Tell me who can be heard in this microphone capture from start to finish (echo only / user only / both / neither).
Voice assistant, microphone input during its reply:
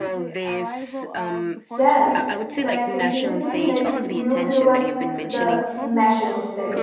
both